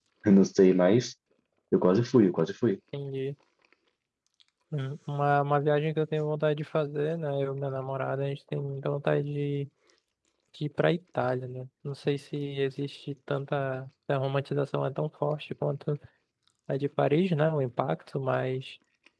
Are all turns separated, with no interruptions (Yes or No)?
Yes